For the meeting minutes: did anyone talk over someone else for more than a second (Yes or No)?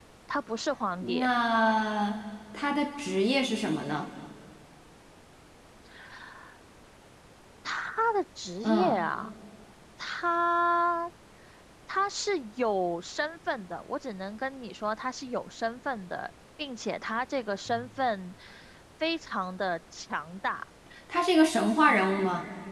No